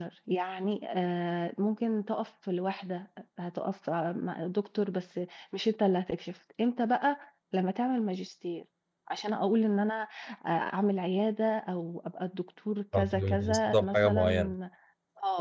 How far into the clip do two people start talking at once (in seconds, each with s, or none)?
12.9 s